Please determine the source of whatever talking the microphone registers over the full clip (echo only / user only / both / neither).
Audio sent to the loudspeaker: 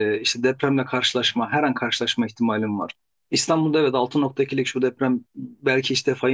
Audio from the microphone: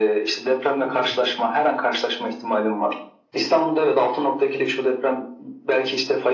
both